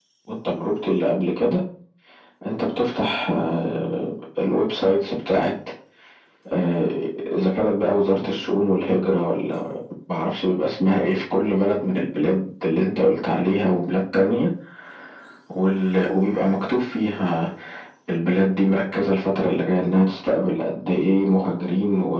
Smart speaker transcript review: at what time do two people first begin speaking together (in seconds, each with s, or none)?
none